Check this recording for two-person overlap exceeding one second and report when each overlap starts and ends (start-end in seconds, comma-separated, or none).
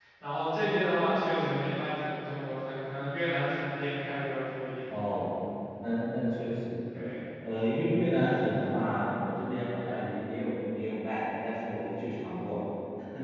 none